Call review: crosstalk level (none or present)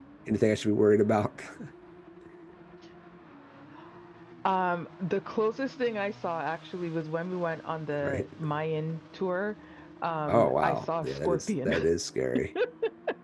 present